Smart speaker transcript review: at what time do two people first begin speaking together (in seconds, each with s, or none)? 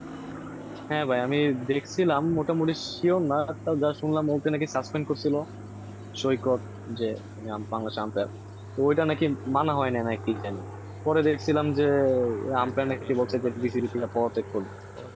12.6 s